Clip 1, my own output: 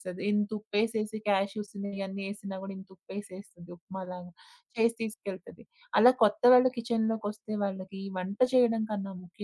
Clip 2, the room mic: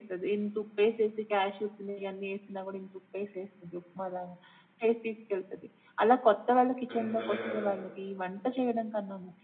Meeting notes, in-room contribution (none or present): present